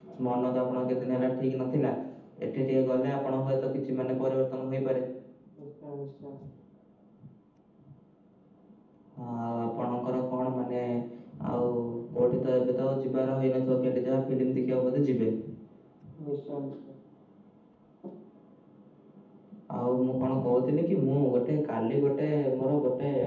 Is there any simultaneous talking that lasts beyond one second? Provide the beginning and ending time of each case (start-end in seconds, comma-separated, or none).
none